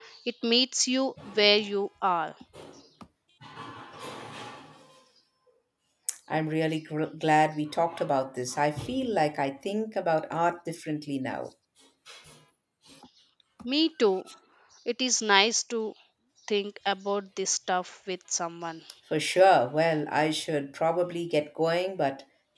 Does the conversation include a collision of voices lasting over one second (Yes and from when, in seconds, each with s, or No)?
No